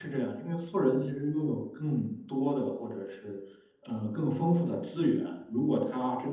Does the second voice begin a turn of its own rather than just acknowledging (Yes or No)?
No